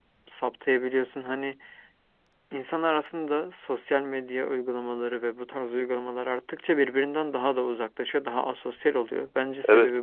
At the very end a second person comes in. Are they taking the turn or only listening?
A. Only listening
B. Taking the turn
B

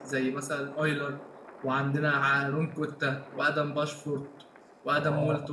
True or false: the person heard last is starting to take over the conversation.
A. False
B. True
B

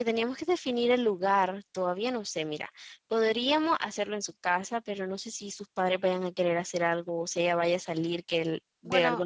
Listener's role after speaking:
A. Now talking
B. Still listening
A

